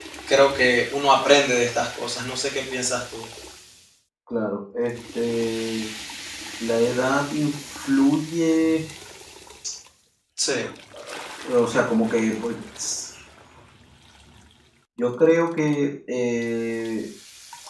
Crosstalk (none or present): none